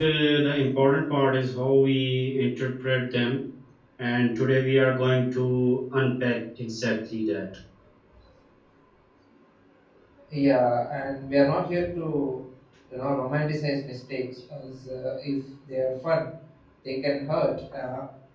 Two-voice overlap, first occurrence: none

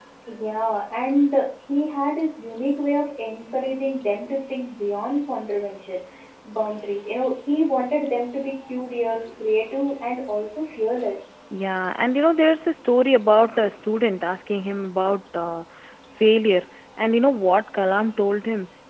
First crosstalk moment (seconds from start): none

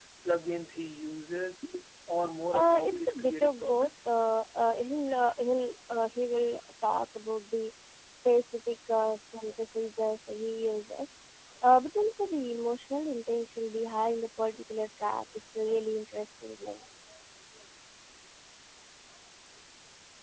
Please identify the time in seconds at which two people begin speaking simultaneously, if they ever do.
2.5 s

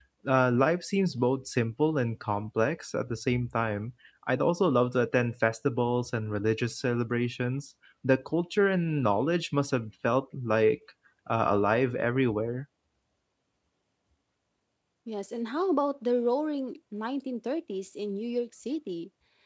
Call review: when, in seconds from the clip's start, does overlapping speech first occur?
none

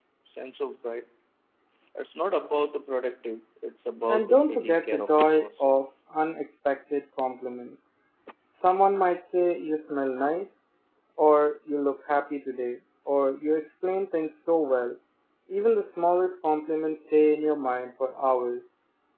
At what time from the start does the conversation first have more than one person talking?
4.1 s

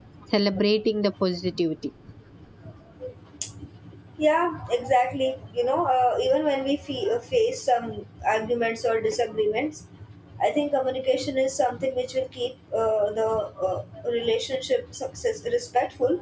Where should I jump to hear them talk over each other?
none

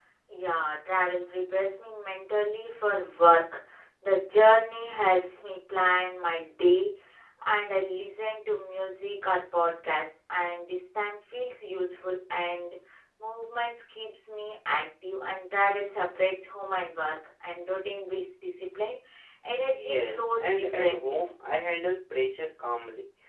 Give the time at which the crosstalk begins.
19.6 s

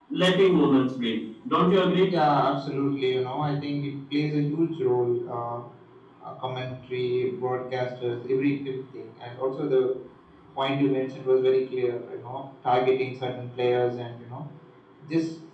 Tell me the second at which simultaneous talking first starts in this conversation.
none

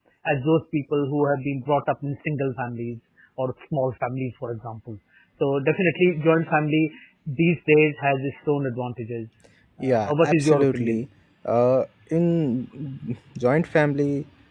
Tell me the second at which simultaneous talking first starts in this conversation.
9.8 s

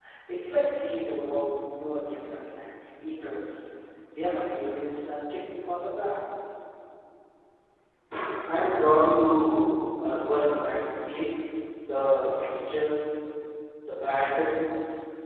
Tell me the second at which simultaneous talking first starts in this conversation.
none

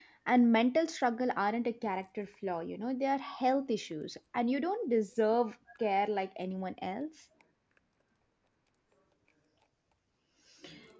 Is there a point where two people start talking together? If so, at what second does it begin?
none

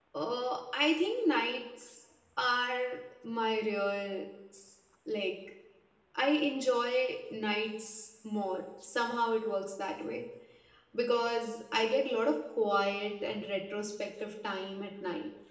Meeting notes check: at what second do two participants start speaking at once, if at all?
none

